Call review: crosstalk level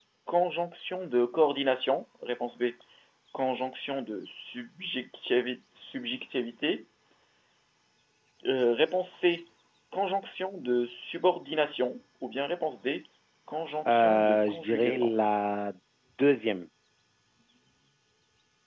present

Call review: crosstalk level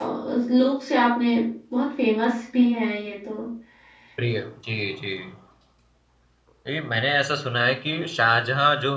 none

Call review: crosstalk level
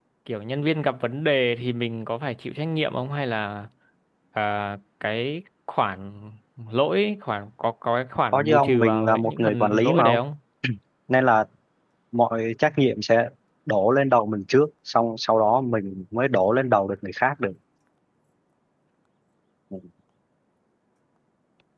present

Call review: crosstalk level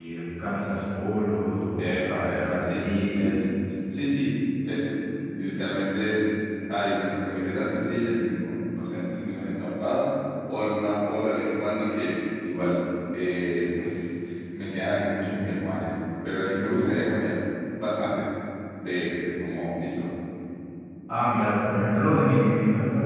present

